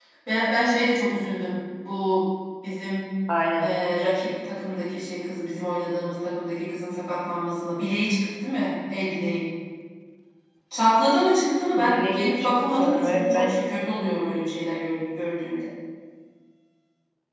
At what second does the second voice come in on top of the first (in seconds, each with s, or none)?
11.8 s